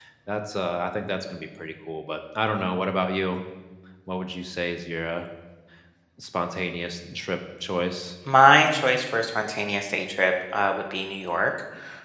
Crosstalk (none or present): none